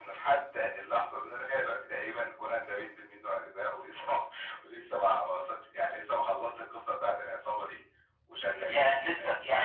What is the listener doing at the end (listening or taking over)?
taking over